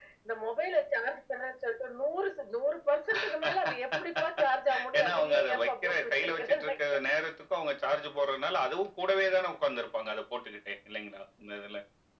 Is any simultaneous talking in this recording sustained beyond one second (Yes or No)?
Yes